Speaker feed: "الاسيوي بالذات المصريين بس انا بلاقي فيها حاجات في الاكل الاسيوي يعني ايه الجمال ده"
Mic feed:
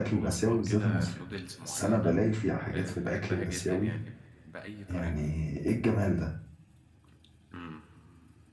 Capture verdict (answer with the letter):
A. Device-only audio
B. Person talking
B